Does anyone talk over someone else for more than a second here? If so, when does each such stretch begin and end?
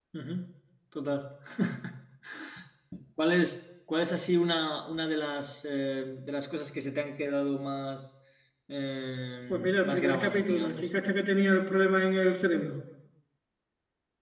9.5-10.9

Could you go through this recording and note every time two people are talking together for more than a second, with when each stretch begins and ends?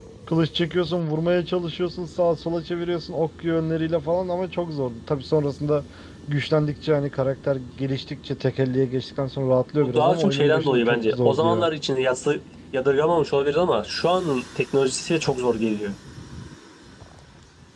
9.8-11.7

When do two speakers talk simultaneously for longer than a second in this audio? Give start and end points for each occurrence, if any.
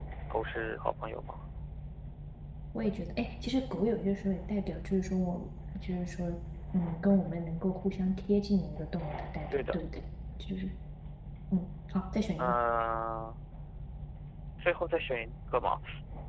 none

